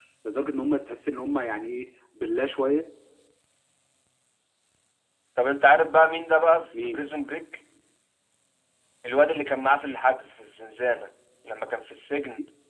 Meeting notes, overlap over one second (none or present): none